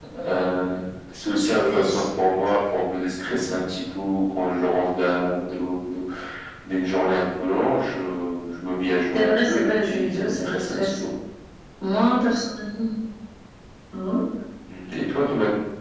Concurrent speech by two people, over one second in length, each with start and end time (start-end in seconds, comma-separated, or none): 9.1-10.9